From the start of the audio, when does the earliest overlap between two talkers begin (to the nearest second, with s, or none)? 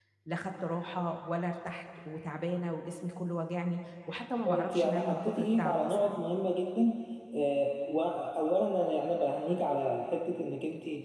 4 s